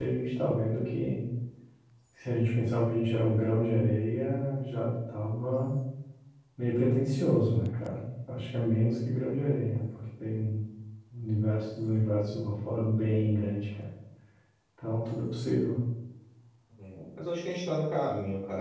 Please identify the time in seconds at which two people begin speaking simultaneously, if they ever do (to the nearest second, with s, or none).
none